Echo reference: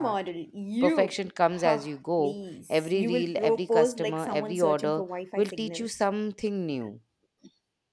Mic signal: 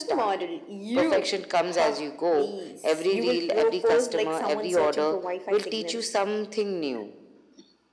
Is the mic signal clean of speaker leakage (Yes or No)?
No